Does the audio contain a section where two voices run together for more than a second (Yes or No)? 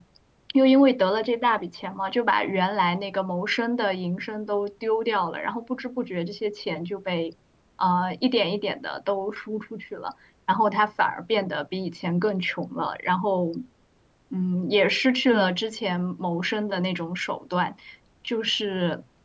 No